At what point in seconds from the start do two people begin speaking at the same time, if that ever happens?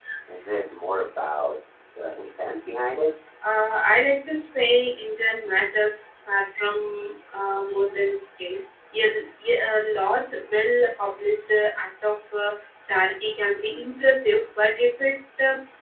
none

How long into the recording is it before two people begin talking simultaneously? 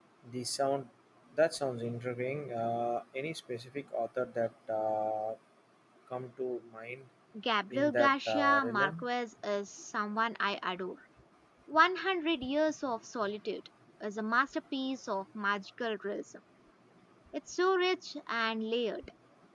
7.7 s

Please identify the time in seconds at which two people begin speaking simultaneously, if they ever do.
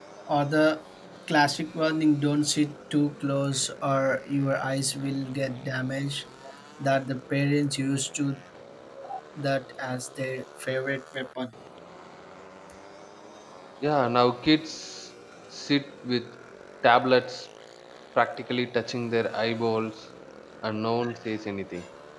none

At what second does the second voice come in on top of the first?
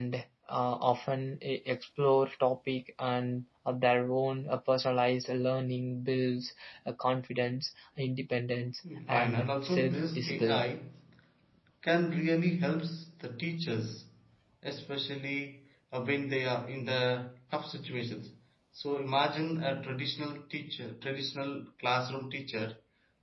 8.8 s

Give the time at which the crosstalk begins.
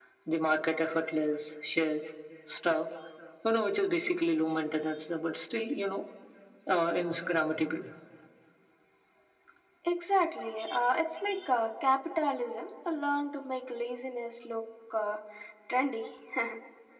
none

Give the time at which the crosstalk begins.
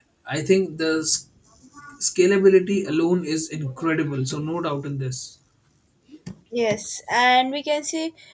none

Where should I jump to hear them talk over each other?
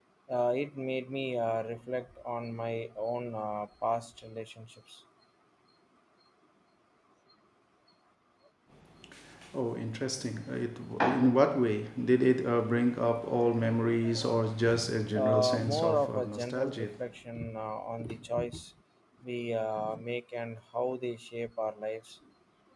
15.1 s

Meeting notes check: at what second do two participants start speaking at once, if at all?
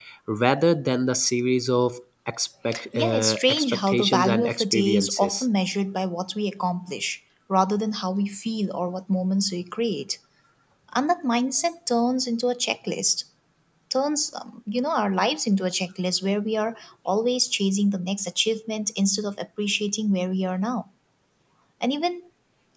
2.7 s

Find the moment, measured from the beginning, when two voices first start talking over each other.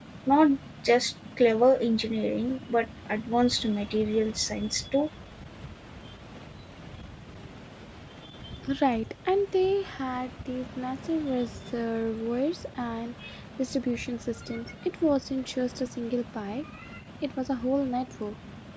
none

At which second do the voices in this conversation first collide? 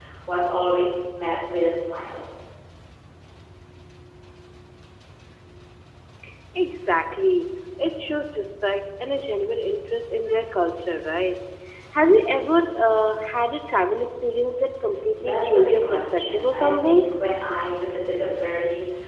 15.2 s

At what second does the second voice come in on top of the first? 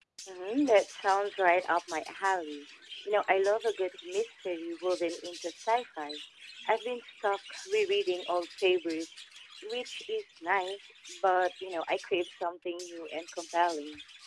none

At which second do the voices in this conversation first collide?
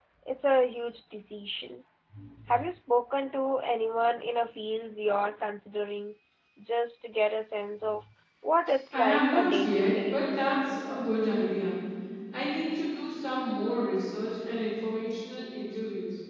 8.9 s

